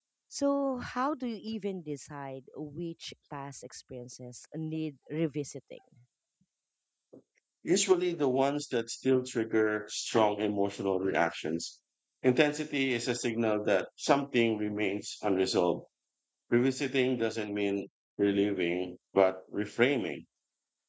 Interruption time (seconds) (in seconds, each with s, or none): none